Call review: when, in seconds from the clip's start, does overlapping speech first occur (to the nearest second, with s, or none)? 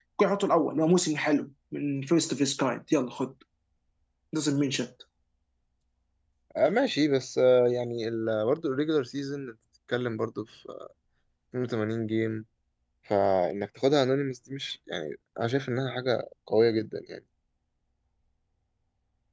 none